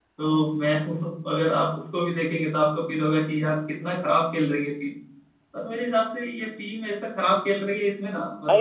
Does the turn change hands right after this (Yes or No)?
No